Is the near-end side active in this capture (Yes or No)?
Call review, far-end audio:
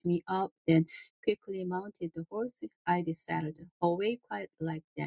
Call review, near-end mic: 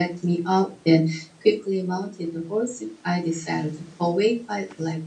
No